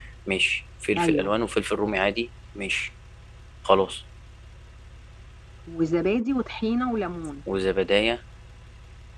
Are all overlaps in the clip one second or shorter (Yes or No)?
Yes